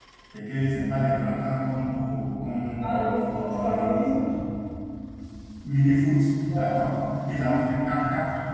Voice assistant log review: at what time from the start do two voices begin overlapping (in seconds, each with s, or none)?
2.8 s